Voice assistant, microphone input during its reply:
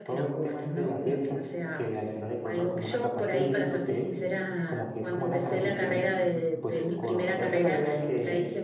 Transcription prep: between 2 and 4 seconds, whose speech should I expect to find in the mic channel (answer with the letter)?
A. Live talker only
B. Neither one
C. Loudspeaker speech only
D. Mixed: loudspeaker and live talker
D